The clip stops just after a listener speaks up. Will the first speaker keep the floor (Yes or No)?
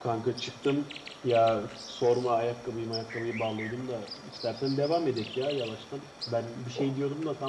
Yes